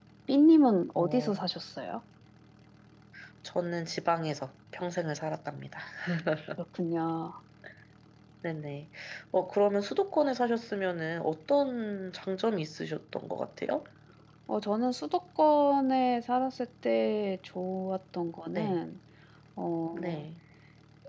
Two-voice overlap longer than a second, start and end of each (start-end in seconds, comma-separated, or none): none